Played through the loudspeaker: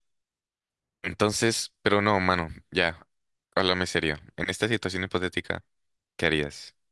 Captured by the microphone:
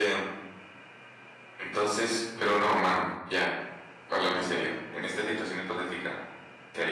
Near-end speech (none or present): present